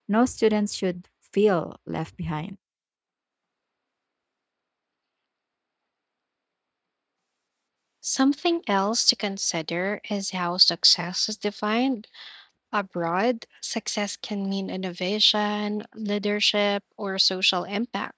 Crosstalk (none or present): none